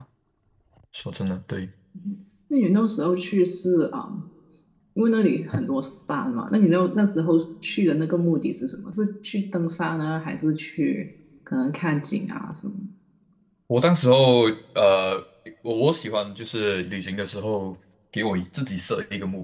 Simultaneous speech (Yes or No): No